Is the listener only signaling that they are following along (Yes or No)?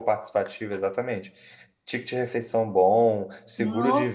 Yes